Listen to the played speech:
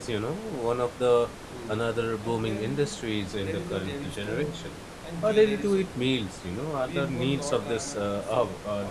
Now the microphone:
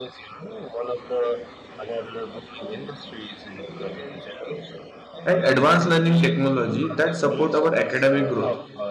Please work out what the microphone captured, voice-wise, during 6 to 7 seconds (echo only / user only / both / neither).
both